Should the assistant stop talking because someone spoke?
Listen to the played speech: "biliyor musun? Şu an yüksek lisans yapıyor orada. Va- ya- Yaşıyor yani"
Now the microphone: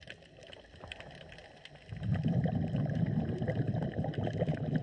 No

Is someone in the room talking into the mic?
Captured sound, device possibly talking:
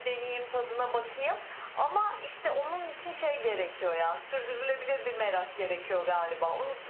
No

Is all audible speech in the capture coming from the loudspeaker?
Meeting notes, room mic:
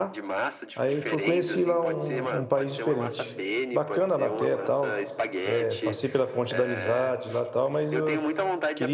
No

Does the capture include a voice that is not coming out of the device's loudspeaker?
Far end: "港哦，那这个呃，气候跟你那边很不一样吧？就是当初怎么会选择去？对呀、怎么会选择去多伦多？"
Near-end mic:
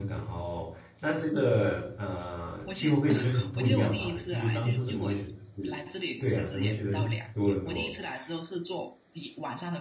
Yes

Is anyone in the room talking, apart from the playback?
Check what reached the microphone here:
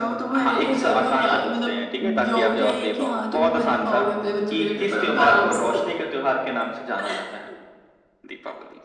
No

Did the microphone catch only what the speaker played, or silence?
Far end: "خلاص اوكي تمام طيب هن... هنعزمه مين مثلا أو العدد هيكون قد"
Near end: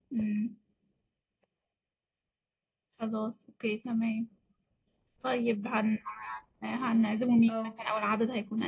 No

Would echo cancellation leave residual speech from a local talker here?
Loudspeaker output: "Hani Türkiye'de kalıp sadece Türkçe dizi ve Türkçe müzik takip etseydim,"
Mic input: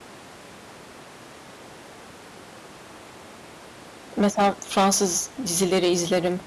Yes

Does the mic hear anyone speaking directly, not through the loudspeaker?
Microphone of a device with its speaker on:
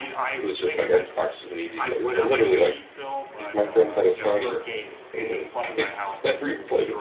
Yes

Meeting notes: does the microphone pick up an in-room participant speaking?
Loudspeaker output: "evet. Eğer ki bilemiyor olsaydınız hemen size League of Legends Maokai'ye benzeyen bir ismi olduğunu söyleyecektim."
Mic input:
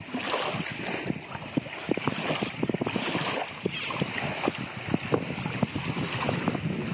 No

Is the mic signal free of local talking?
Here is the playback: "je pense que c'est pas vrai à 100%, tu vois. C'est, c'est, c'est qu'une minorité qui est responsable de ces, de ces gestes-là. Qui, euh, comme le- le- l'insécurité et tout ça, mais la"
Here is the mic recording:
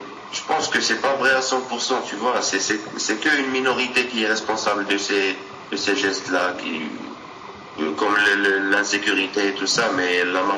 Yes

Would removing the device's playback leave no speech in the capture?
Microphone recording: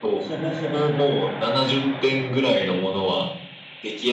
Yes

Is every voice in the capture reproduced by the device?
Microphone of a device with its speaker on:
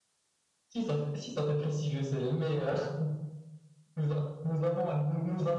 Yes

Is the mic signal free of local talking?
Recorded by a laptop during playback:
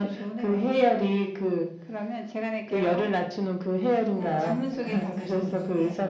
No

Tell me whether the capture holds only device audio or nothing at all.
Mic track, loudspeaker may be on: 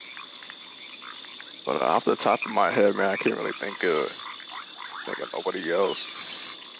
No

